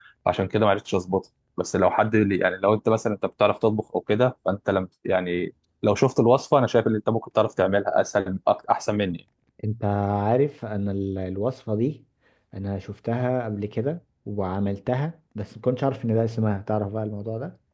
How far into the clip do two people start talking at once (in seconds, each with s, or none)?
none